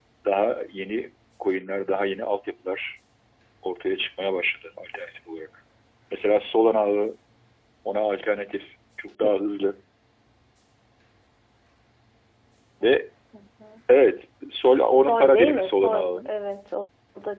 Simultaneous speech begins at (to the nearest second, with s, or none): 15 s